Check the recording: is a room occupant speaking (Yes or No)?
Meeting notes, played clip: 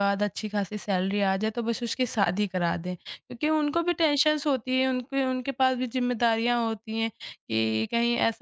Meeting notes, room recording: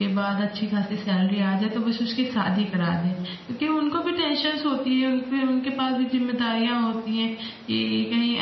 No